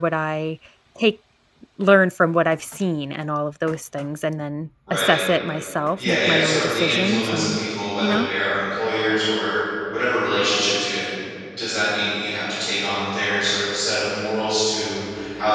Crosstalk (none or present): present